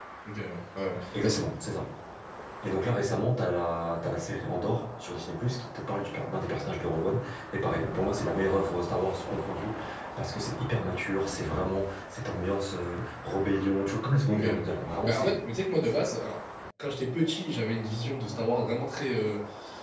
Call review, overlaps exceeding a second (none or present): none